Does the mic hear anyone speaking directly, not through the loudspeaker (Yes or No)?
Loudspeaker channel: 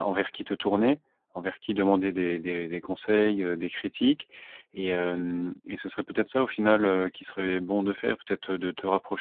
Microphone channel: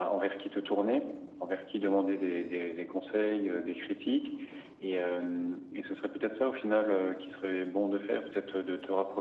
No